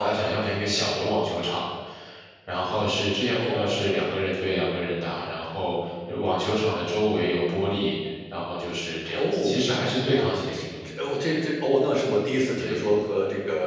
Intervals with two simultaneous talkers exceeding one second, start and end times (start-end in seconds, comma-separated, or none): none